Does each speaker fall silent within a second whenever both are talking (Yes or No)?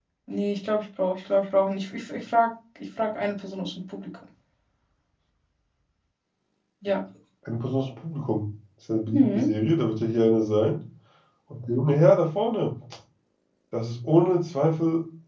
Yes